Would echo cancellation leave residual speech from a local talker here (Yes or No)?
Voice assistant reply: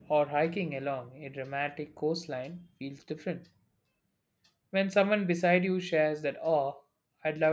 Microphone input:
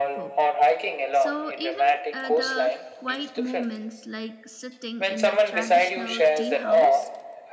Yes